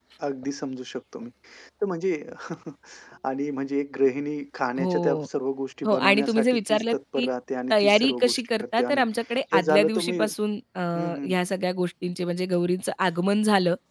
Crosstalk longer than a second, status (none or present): present